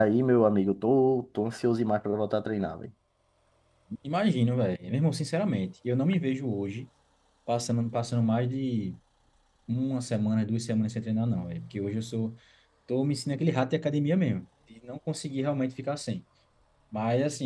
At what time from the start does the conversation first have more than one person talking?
none

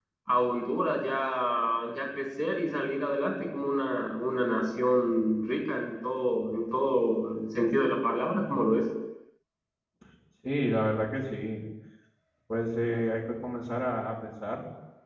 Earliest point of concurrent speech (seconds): none

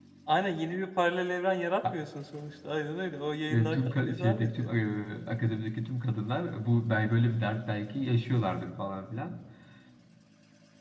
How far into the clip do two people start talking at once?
3.5 s

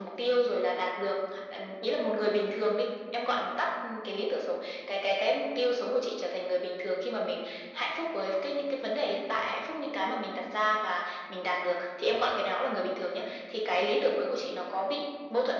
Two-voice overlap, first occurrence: none

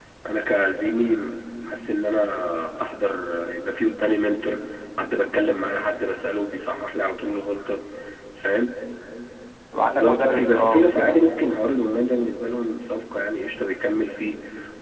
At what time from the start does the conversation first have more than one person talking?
9.8 s

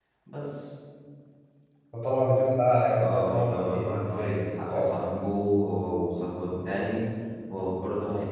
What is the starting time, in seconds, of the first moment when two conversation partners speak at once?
3.0 s

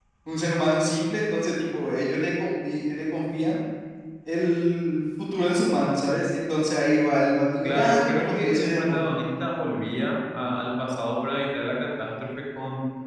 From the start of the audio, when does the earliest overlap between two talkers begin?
7.6 s

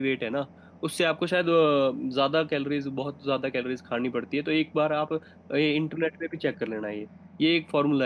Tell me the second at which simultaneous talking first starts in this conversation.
none

